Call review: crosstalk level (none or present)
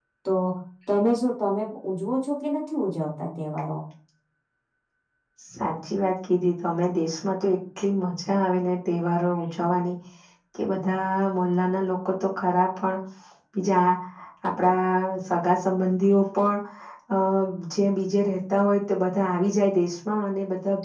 none